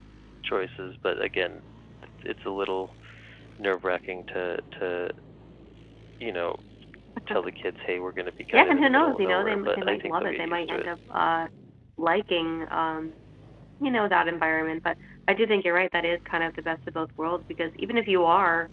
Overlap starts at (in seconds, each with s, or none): 8.5 s